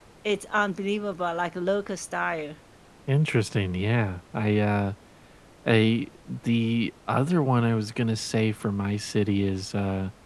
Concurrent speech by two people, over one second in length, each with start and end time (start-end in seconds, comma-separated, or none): none